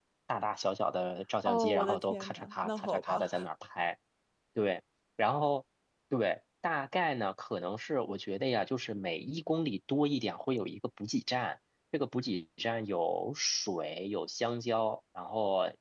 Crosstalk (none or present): present